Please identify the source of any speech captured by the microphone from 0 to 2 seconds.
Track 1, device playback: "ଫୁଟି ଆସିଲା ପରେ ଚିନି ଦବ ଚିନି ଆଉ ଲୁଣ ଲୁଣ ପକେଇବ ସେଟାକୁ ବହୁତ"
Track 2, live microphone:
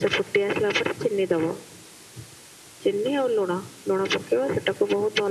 echo only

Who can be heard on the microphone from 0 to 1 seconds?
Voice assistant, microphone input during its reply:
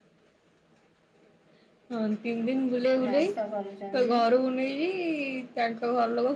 neither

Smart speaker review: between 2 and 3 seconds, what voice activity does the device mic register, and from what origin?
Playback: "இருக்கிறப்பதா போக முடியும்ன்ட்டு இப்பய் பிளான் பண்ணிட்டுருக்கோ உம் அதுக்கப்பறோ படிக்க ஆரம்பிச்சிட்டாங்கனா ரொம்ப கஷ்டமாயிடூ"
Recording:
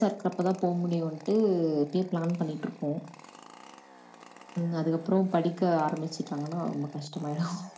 echo only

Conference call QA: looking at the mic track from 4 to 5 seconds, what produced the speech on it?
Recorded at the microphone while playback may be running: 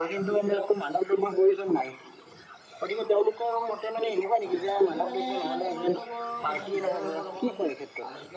both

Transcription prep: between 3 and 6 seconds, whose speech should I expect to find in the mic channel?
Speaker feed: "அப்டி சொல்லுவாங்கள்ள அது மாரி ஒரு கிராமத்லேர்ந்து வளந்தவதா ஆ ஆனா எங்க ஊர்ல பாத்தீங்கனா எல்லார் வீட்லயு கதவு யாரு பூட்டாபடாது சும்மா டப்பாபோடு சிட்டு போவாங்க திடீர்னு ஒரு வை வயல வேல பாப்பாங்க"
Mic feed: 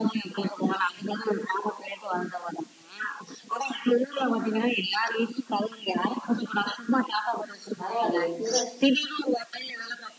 echo only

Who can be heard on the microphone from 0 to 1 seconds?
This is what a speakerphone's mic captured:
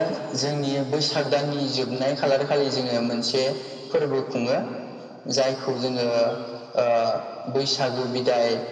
echo only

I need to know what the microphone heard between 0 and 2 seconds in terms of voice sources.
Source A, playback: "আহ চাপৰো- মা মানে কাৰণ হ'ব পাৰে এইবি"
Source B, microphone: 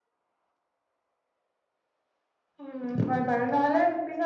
neither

